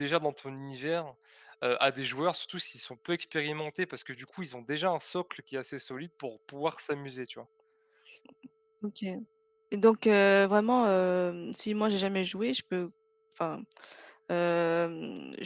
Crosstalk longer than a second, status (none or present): none